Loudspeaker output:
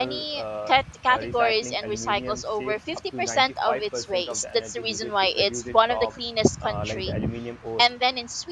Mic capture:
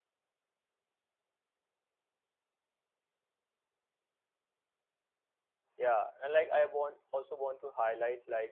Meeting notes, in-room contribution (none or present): present